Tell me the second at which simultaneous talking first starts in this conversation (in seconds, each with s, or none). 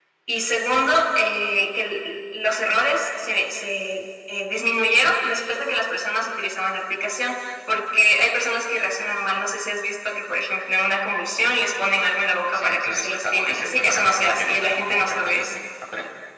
12.5 s